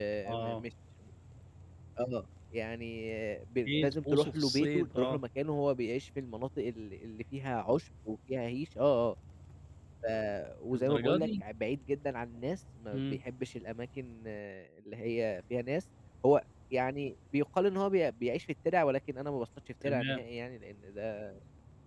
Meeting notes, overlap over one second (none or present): present